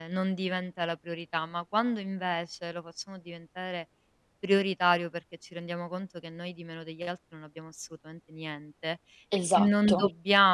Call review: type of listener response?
listening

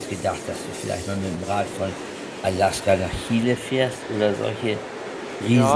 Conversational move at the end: taking over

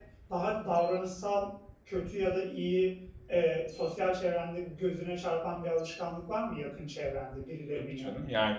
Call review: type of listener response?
taking over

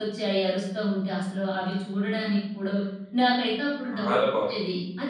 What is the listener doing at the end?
listening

